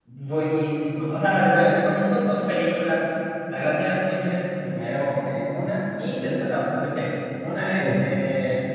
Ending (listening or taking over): listening